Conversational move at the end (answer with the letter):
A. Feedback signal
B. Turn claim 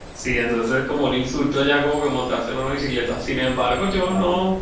A